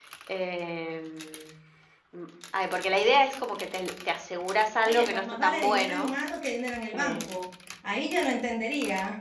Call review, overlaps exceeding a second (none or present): present